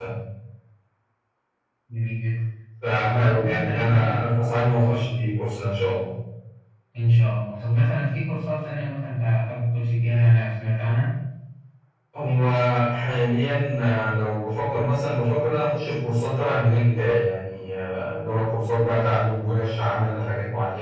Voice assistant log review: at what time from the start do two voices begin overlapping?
3.0 s

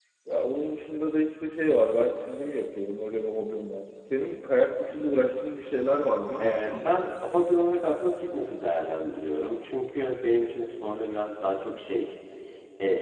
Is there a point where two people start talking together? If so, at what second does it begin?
none

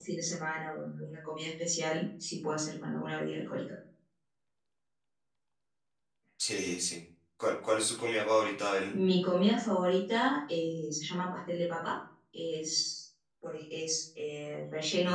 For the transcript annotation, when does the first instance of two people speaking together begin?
none

